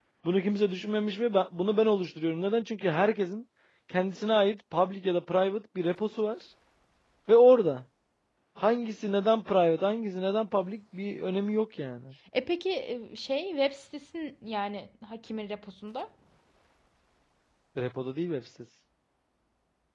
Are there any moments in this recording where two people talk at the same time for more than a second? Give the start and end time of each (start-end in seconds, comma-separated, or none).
none